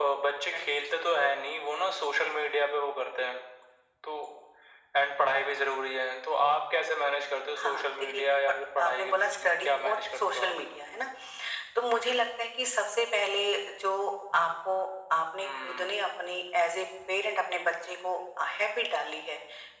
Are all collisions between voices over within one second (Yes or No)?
No